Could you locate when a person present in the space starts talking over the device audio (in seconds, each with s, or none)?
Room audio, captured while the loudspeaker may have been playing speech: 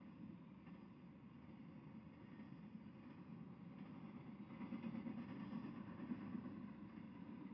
none